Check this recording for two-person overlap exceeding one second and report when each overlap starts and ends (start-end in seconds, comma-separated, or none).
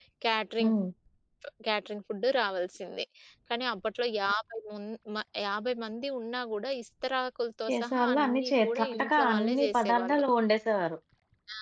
7.7-10.2